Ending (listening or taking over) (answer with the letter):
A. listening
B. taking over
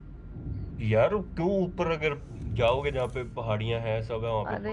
B